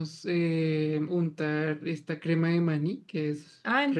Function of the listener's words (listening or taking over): taking over